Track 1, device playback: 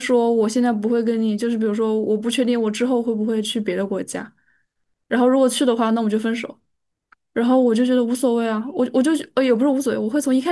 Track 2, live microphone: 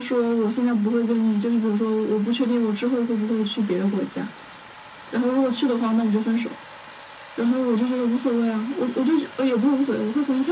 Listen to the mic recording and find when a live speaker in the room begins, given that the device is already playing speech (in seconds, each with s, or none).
none